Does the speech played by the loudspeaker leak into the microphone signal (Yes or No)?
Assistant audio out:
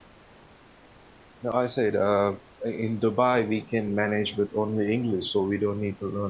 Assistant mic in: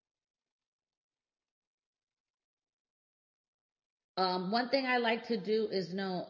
No